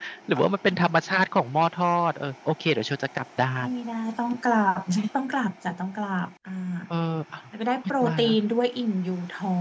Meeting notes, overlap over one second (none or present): none